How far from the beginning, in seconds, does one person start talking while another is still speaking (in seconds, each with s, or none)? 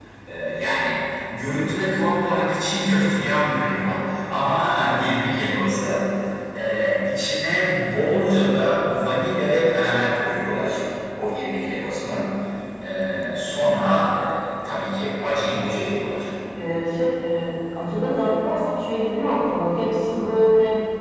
none